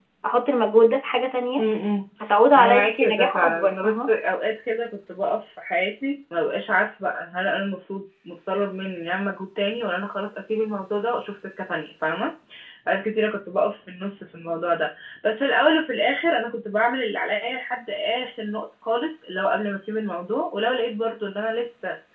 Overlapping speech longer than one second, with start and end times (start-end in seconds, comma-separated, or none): 2.6-4.1